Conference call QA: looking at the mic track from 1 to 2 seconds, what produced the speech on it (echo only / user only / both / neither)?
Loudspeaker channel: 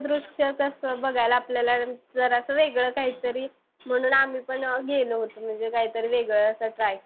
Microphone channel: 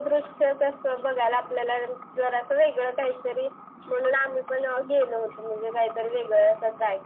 echo only